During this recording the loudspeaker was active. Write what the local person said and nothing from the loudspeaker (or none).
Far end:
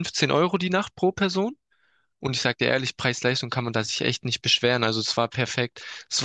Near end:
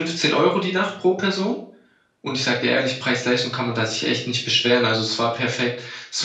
none